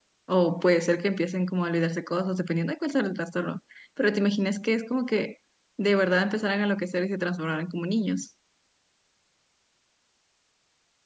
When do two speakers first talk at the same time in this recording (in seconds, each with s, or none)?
none